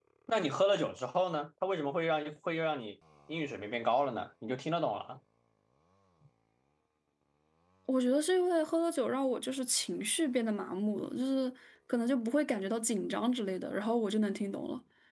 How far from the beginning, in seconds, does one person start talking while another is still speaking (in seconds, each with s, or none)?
none